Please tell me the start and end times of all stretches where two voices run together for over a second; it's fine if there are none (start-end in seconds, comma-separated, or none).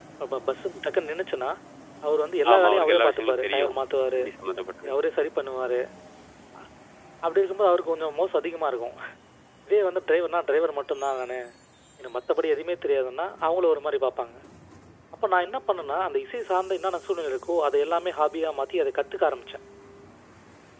2.5-3.8